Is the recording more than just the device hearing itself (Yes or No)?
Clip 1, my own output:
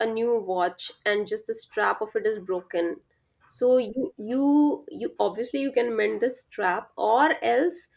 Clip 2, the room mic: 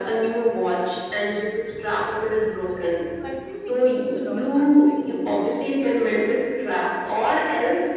Yes